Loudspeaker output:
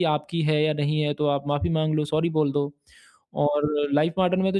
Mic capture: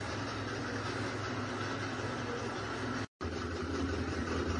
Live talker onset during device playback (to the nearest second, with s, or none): none